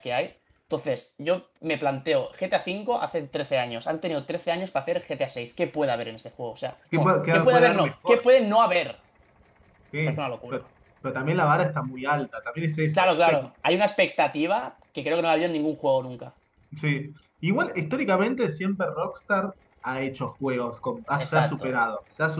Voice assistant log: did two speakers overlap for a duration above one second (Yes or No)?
Yes